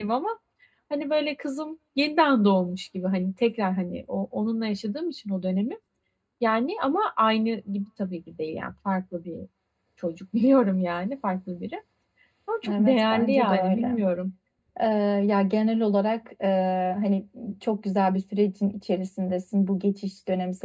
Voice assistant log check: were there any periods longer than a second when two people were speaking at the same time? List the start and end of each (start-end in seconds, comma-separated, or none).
12.7-13.9